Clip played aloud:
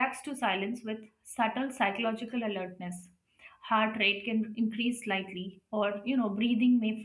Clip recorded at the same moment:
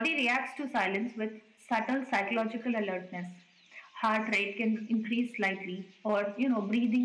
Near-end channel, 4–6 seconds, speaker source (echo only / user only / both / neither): echo only